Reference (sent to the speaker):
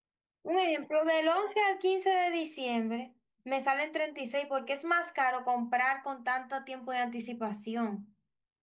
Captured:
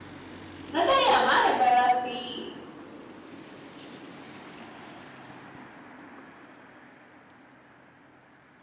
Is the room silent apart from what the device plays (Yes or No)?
No